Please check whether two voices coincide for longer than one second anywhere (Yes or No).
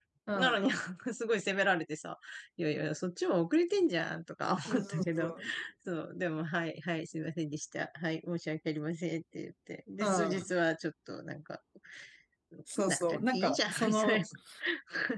Yes